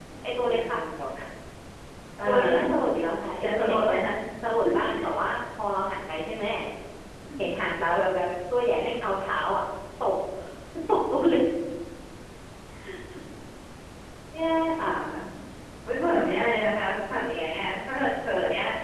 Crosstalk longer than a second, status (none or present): none